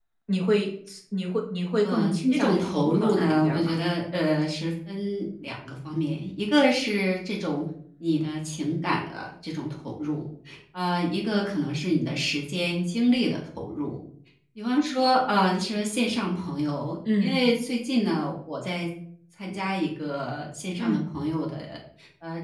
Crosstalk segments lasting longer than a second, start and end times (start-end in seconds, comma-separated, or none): 1.8-3.8